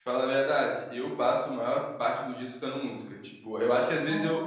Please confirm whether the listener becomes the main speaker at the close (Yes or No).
No